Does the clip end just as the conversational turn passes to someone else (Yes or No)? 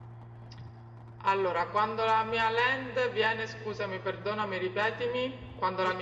Yes